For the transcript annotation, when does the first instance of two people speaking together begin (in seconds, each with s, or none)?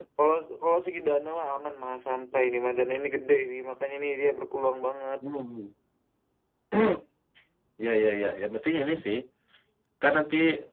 none